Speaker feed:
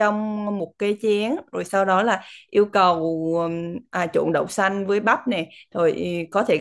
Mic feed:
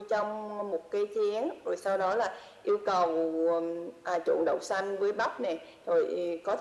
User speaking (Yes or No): No